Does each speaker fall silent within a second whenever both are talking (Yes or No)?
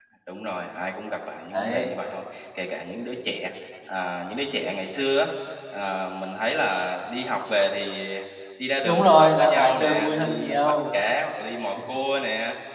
No